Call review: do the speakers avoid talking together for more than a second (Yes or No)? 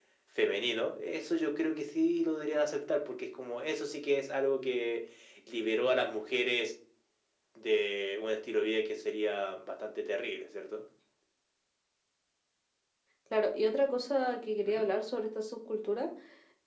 Yes